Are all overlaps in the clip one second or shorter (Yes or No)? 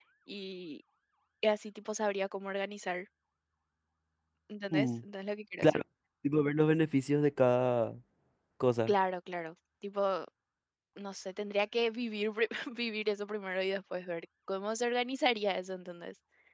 Yes